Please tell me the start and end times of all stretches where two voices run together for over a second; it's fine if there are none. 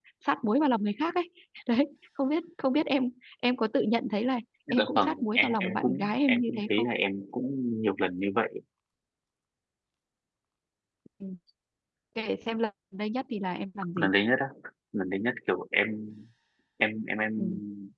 4.8-6.8

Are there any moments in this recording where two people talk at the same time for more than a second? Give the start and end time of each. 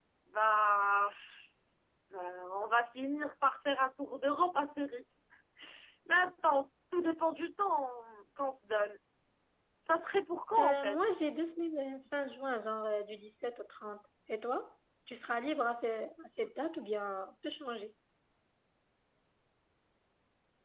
none

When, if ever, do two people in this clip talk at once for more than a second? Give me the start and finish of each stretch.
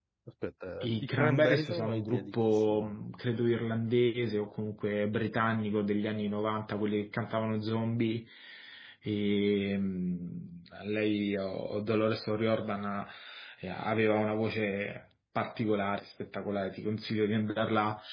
0.8-3.0

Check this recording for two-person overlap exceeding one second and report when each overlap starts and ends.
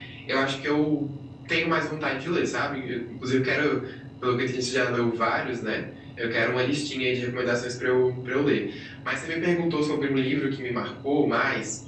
none

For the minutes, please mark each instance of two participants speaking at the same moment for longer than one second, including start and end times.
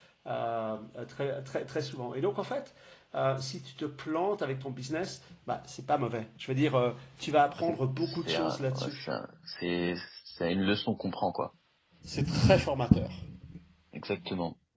7.6-9.1

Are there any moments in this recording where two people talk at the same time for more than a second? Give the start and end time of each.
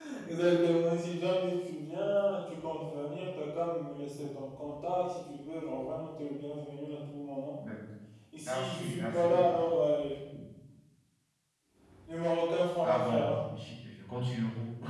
8.4-9.7

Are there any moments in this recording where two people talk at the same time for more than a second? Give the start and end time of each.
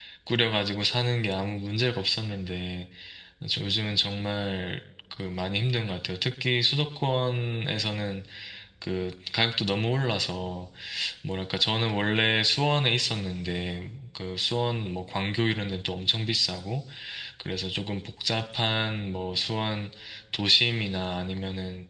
none

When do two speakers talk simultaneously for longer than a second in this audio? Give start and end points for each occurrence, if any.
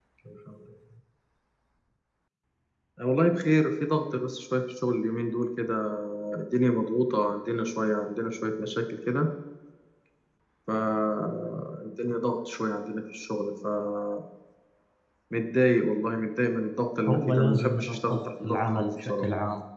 17.1-19.2

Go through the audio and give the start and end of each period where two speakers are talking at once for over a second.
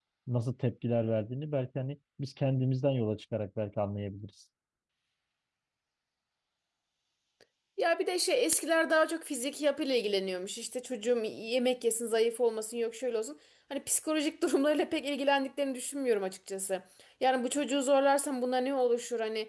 none

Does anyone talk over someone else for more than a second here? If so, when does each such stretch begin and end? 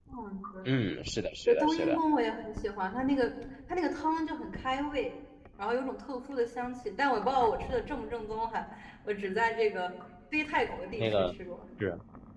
none

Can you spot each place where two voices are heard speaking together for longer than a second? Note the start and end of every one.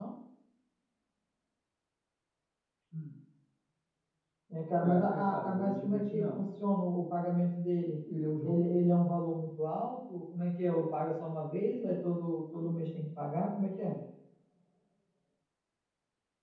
4.8-6.4

